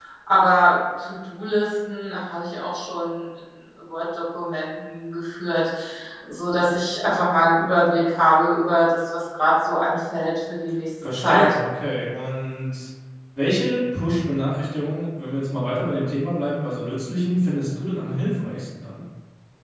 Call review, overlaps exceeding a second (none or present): none